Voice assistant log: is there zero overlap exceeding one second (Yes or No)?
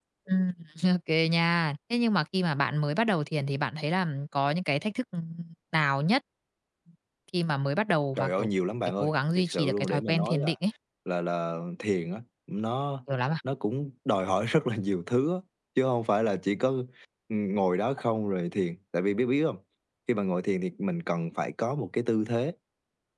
No